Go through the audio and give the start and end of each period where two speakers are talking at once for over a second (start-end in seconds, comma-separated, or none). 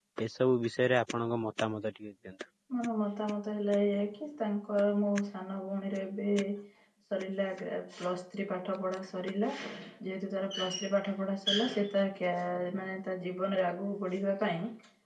none